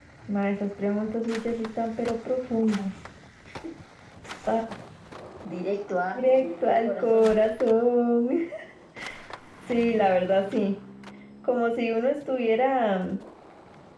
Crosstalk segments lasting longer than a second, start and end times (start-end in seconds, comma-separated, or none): 6.1-7.4